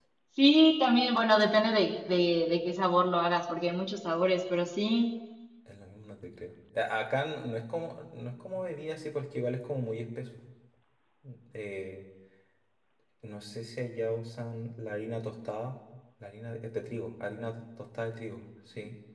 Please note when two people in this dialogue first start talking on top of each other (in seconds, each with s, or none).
none